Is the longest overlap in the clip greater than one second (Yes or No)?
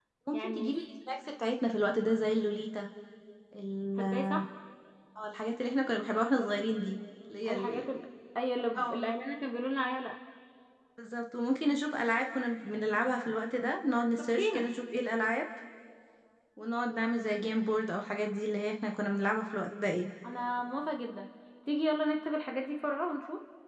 No